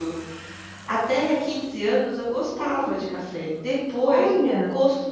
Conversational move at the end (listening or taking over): listening